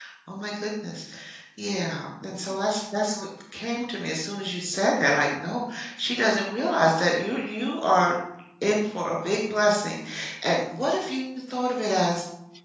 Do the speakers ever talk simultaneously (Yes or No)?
No